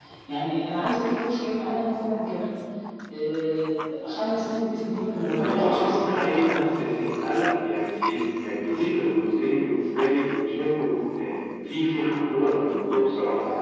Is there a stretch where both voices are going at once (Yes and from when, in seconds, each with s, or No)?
Yes, from 5.4 s